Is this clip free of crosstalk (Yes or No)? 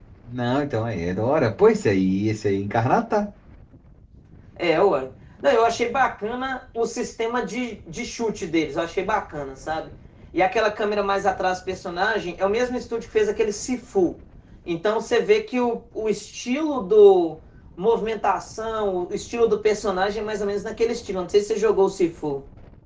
Yes